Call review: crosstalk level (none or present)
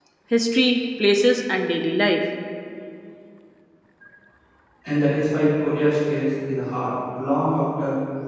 none